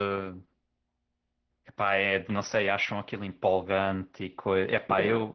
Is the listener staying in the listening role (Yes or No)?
No